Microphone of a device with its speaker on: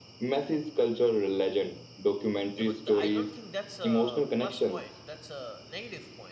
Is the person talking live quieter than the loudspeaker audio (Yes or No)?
Yes